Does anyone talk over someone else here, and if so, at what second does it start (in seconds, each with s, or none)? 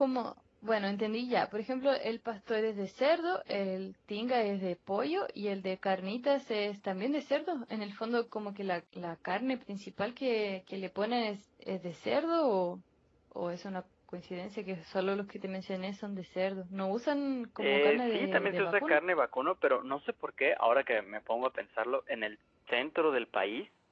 17.6 s